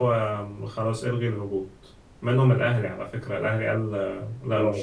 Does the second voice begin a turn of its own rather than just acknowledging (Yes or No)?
Yes